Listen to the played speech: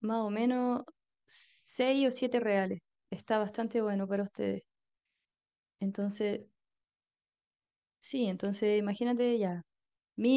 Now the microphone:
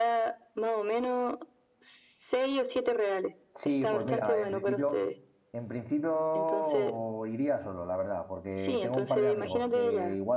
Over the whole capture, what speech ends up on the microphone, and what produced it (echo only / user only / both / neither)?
both